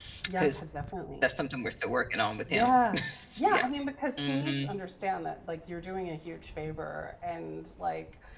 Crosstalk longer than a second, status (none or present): none